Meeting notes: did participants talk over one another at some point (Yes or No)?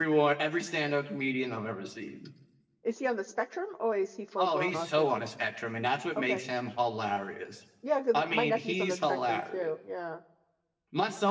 Yes